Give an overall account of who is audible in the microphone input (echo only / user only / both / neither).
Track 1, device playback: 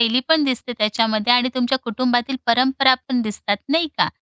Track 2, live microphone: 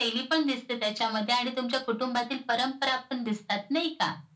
echo only